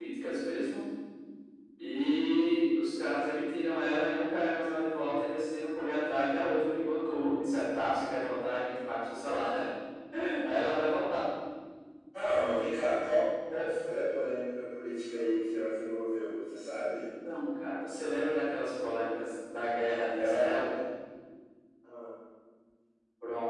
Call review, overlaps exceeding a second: none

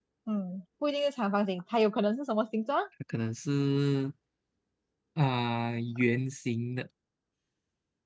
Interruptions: none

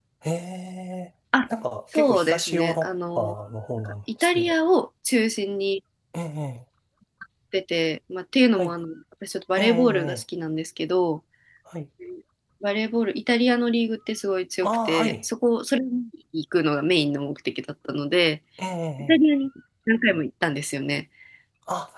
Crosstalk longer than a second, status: present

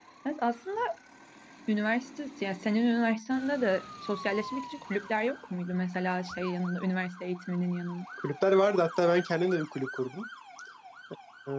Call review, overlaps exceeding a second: none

